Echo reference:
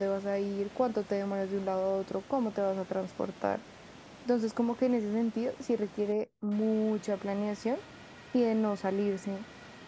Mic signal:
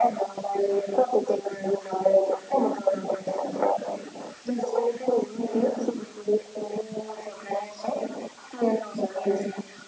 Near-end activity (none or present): none